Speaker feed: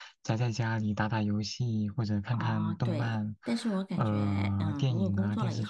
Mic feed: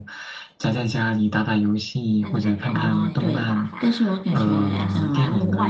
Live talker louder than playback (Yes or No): No